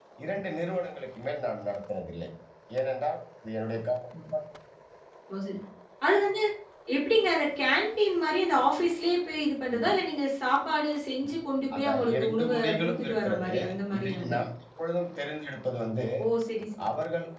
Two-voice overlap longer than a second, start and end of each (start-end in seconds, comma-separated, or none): 11.8-13.5